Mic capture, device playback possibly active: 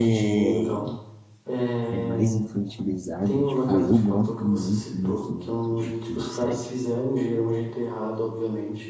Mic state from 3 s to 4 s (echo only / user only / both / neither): both